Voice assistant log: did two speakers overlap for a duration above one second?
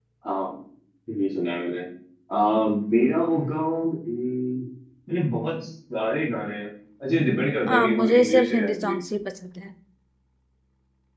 Yes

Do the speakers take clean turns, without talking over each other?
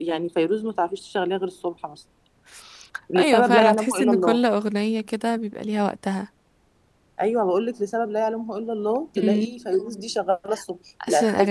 No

